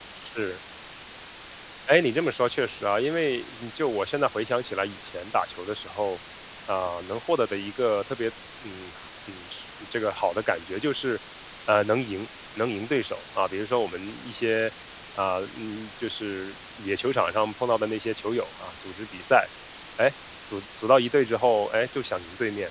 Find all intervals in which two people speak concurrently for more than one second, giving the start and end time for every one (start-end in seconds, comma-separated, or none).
none